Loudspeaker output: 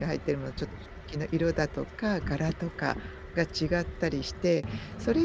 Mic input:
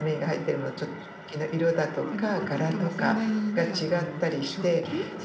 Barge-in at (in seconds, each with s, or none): 1.9 s